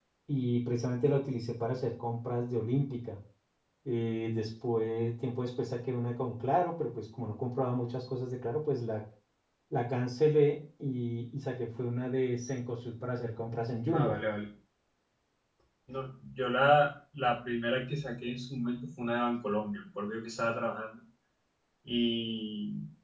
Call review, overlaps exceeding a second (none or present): none